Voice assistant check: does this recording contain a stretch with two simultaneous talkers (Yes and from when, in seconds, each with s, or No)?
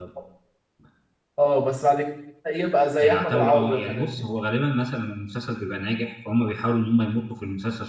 Yes, from 3.0 s